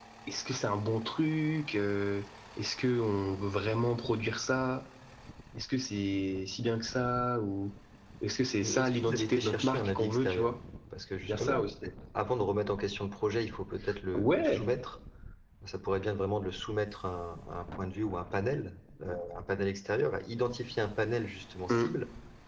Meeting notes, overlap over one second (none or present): present